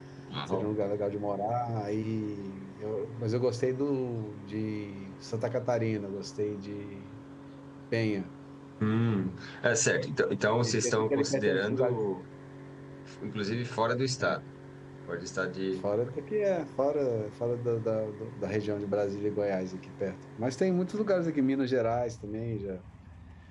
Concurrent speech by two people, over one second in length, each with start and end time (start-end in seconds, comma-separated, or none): 10.6-12.0